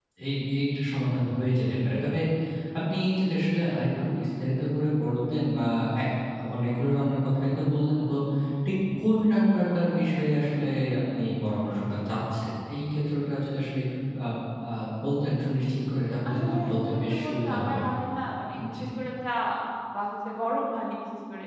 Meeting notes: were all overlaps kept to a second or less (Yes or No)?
No